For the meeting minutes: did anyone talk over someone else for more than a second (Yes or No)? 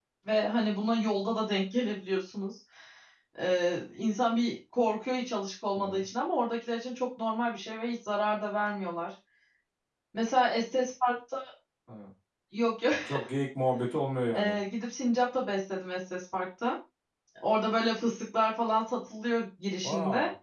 No